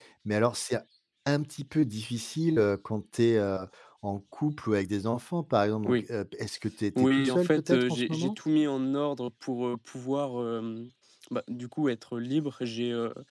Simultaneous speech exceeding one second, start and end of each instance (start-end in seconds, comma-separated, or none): 7.0-8.3